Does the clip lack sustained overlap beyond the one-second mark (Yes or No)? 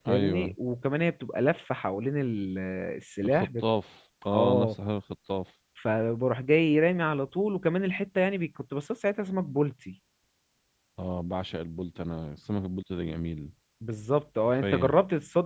Yes